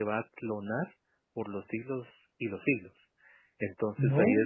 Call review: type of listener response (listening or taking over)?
listening